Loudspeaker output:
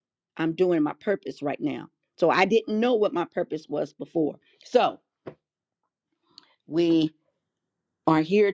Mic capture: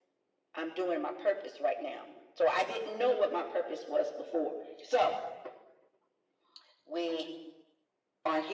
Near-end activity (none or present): none